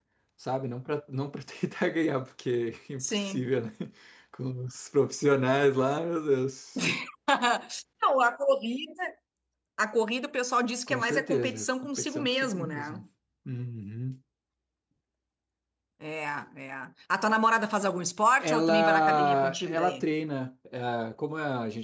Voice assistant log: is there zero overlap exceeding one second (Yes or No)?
No